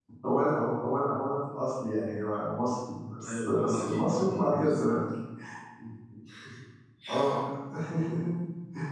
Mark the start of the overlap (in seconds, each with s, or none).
3.2 s